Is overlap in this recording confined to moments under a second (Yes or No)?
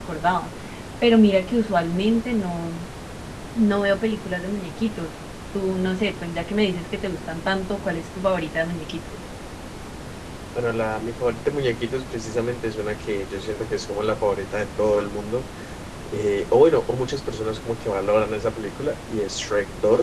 Yes